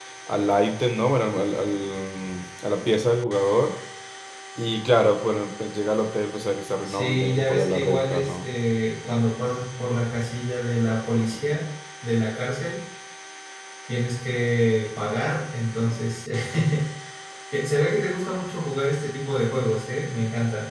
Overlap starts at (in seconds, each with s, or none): 6.8 s